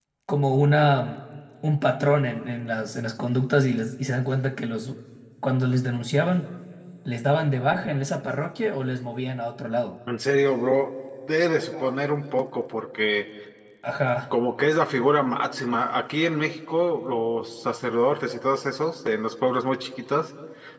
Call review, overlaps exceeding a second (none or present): none